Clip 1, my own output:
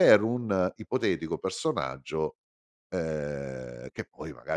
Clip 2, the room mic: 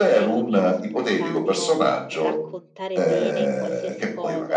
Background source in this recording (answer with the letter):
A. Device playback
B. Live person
B